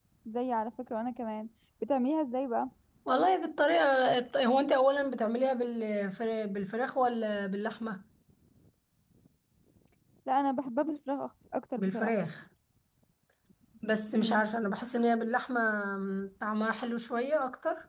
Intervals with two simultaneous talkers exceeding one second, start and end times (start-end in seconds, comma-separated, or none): none